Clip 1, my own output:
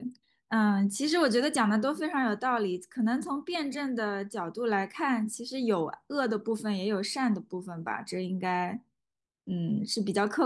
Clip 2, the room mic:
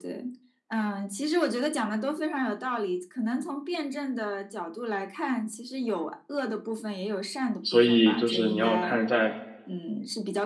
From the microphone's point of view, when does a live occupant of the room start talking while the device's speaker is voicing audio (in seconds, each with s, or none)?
7.6 s